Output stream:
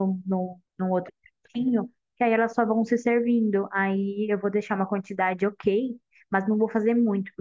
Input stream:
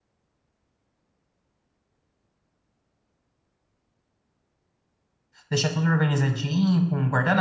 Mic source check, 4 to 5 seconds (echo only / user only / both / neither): neither